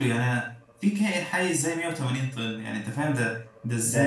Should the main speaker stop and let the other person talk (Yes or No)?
Yes